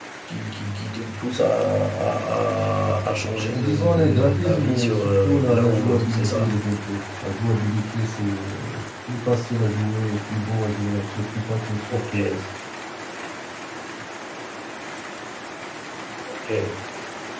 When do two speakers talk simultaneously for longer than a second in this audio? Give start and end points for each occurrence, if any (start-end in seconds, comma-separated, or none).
3.5-6.6